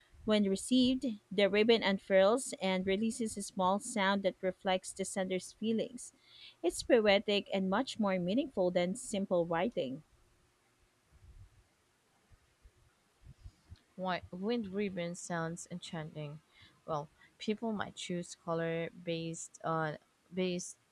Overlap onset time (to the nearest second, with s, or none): none